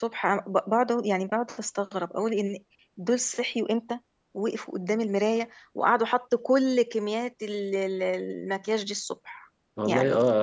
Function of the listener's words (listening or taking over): taking over